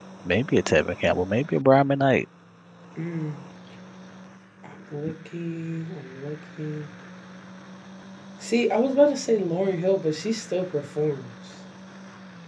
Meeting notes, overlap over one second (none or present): none